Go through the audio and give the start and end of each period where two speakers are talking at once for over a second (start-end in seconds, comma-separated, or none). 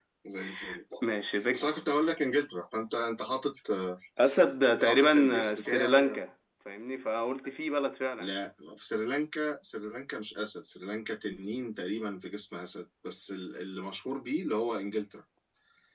4.8-6.2